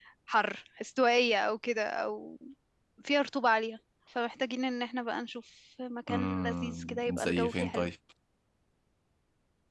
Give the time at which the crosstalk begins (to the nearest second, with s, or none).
6 s